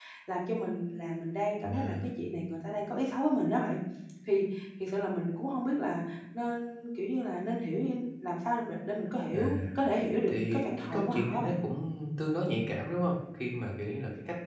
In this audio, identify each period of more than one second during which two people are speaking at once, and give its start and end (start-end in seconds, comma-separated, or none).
10.3-11.6